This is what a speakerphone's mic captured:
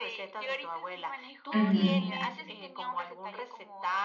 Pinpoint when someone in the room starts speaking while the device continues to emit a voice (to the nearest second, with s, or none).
2 s